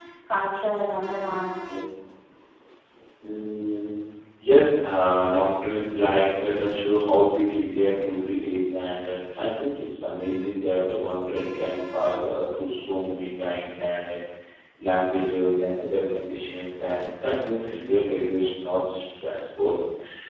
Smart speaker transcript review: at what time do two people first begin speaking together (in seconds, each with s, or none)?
none